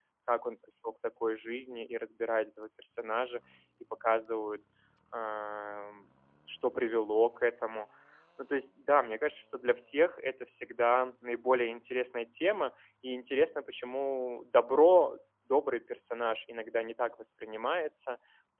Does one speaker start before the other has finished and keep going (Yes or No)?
No